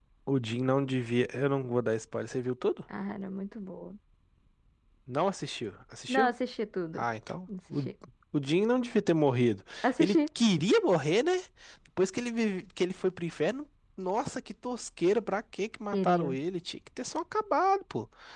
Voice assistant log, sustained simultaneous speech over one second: none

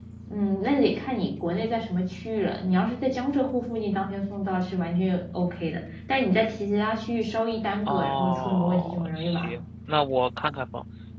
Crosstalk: present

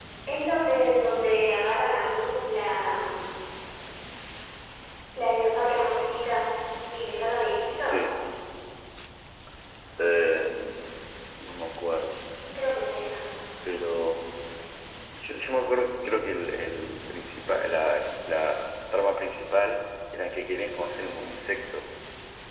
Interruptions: none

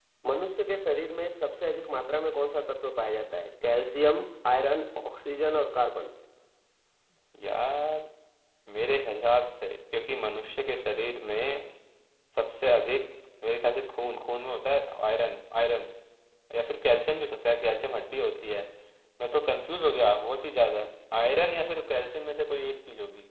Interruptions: none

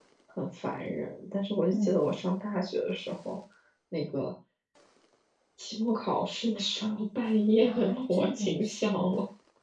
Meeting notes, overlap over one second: present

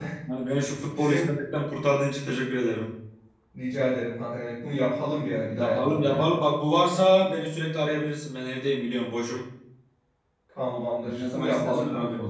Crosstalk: present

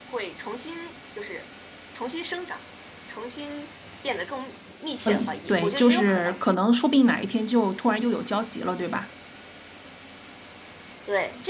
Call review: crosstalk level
present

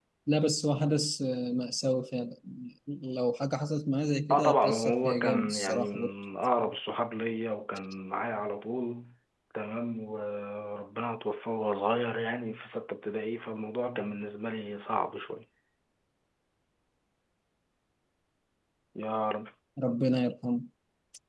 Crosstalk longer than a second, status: present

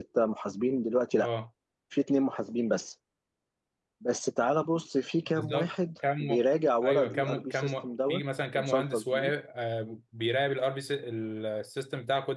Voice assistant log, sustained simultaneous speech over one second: present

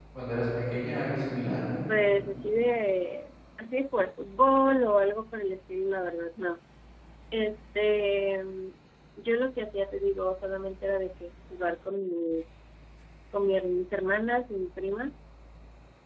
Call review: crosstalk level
none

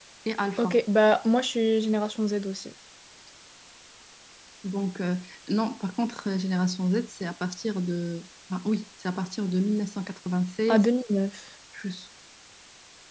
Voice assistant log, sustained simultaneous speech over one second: none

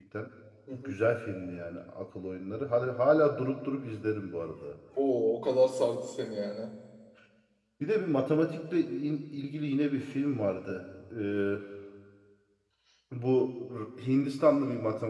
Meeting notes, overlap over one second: none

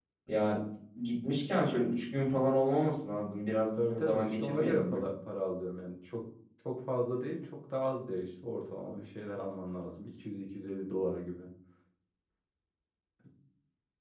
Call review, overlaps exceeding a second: present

